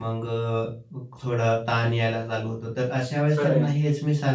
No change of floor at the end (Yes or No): Yes